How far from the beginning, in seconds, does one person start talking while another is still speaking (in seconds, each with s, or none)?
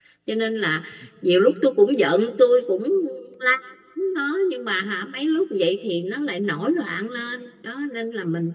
none